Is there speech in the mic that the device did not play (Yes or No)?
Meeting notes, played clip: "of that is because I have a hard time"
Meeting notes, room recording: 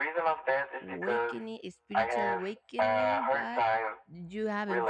Yes